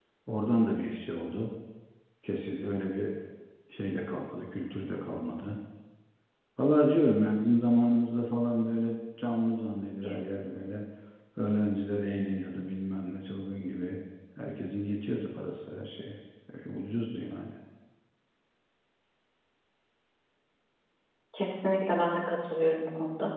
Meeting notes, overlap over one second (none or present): none